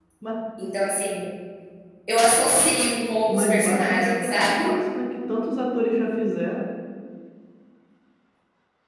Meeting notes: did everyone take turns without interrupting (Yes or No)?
No